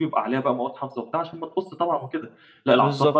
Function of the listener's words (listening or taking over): listening